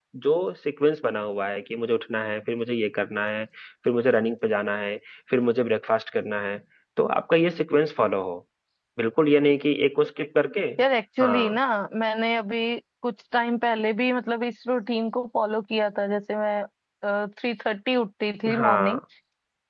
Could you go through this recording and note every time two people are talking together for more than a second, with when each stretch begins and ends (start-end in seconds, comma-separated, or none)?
none